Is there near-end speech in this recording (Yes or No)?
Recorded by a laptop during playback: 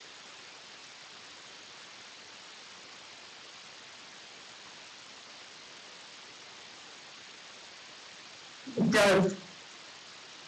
Yes